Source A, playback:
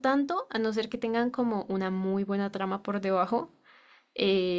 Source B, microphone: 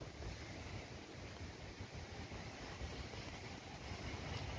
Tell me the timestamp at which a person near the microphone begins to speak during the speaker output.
none

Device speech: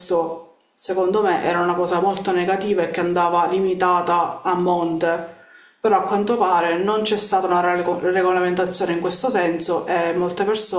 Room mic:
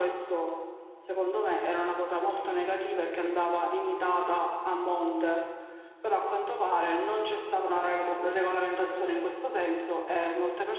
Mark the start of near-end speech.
none

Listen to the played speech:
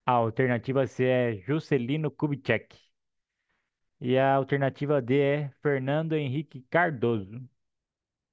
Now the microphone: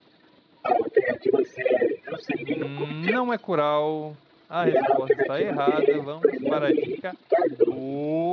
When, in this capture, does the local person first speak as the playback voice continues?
2.3 s

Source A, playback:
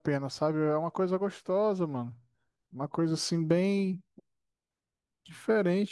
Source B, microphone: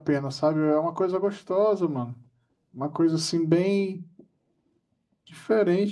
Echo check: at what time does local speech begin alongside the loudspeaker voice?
none

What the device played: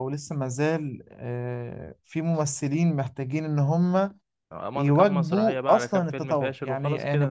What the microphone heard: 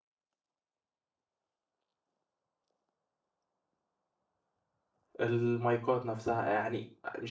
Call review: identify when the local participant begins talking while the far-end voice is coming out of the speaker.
5.2 s

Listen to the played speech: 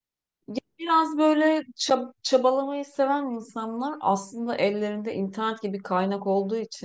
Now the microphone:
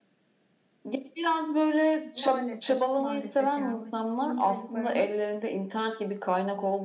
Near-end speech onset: 2.1 s

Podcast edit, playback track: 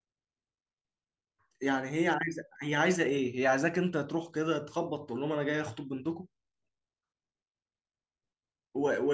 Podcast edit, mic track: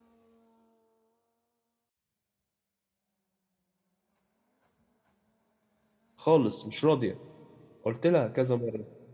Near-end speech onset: 6.2 s

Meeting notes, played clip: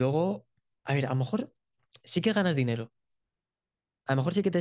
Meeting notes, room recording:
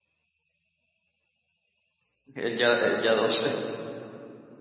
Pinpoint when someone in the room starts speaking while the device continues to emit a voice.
2.3 s

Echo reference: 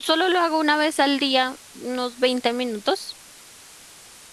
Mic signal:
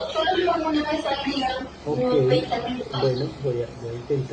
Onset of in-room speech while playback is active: 1.8 s

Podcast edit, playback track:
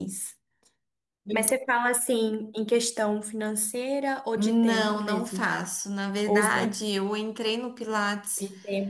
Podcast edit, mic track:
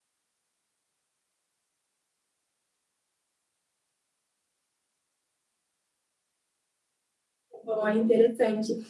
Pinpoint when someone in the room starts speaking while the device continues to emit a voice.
7.6 s

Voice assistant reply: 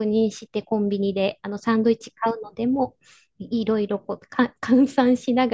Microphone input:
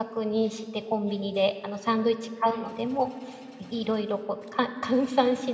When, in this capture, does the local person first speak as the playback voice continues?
2.4 s

